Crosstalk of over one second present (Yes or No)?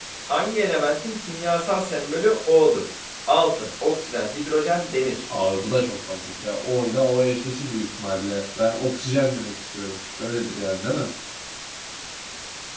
No